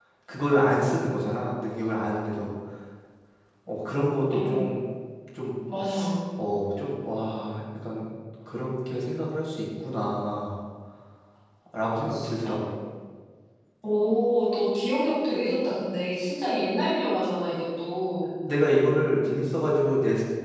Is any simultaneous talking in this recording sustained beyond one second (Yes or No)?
No